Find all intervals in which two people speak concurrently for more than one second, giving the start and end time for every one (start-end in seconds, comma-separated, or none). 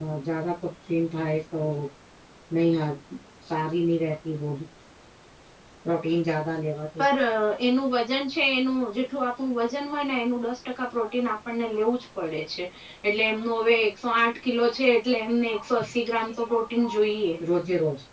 none